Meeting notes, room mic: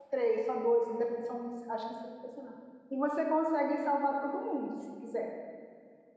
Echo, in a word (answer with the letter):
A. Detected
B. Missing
B